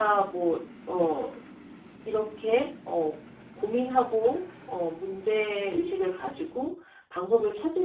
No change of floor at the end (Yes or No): Yes